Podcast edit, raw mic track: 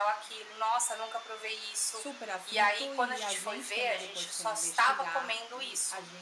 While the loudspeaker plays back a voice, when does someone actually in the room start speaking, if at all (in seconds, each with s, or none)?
1.9 s